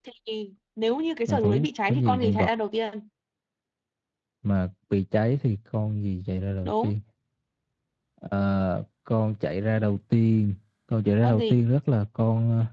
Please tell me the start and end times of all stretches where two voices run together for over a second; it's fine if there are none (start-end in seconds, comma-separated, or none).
1.3-2.5